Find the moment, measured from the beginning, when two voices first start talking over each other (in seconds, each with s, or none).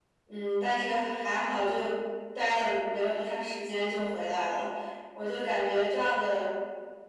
none